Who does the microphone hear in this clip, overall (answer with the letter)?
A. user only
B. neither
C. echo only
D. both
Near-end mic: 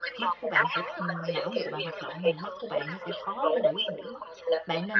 D